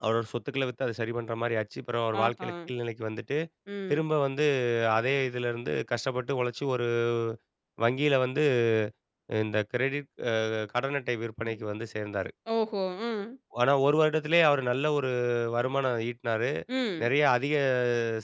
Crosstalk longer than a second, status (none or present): none